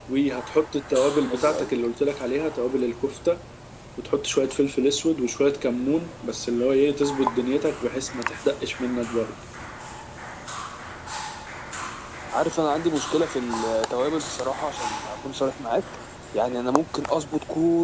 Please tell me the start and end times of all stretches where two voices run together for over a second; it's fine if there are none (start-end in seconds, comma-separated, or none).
none